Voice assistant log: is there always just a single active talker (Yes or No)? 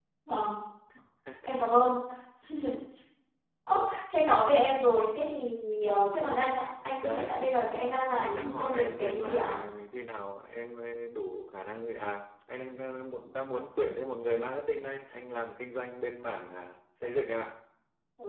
No